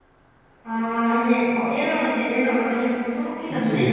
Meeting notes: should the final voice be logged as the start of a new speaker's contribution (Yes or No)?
Yes